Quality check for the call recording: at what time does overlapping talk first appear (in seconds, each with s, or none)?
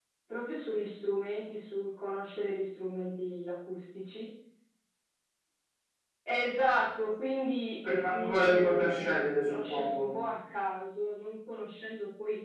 8.1 s